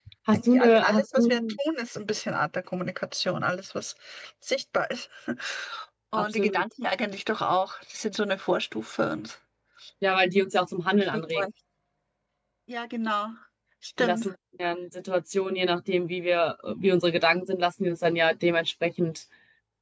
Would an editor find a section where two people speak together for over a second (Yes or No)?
Yes